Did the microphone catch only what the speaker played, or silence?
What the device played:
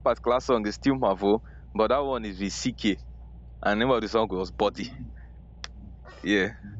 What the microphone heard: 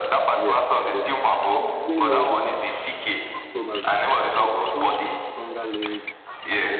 No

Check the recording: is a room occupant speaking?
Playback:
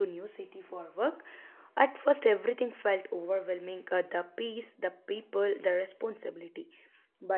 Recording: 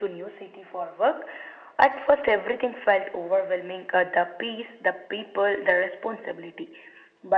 No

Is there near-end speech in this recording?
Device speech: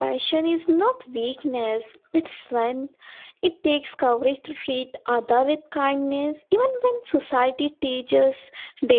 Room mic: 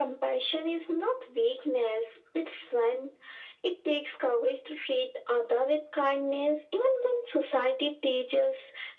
No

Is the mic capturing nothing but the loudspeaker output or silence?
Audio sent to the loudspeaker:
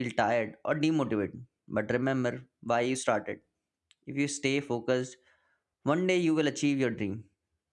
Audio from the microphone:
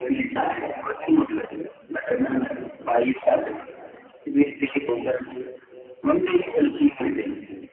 Yes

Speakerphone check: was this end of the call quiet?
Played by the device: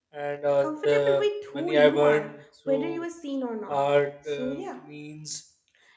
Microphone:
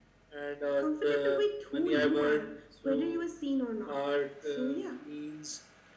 Yes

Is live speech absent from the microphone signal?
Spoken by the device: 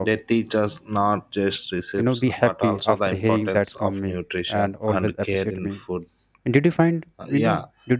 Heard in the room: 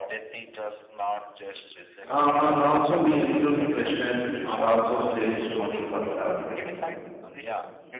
No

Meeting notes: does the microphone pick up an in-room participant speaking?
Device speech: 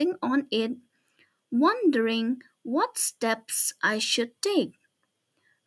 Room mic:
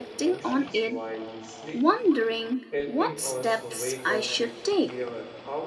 Yes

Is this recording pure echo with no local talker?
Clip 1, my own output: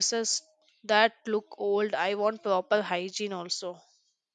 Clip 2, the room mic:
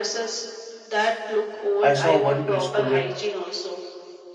No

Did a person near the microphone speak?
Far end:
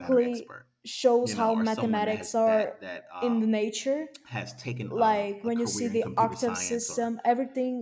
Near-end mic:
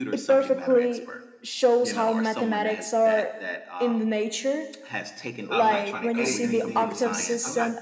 Yes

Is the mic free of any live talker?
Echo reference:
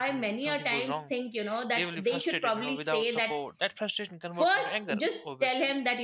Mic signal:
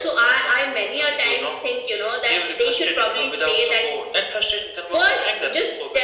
Yes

